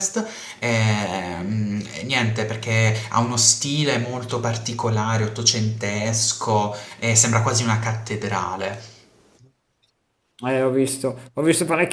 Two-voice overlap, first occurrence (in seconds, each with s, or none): none